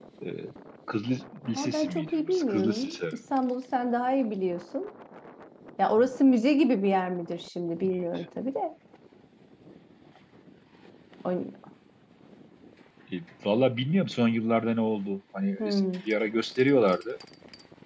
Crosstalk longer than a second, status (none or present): present